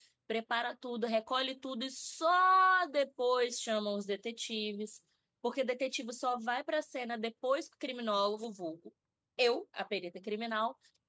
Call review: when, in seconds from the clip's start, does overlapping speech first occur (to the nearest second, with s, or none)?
none